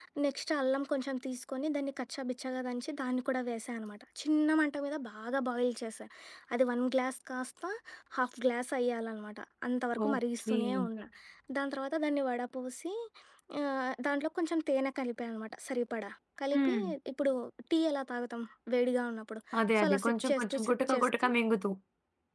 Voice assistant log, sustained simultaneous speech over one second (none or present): present